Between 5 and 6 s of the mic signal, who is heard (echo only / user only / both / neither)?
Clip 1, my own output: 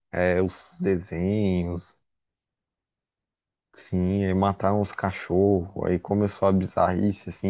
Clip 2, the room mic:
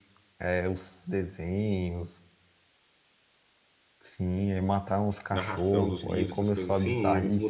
both